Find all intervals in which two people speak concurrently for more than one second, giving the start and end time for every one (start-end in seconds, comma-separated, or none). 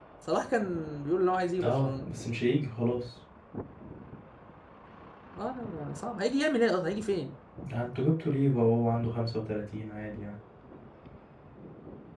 none